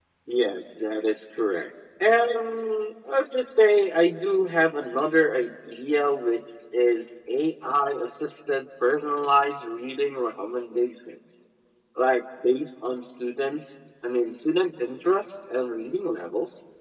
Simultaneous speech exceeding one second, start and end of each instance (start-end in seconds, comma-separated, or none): none